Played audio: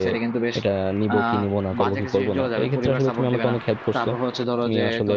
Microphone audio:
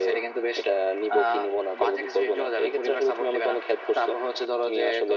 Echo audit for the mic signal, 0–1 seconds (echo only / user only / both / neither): echo only